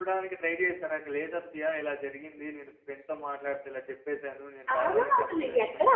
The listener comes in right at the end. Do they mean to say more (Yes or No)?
Yes